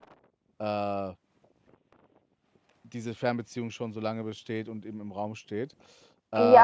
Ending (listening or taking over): taking over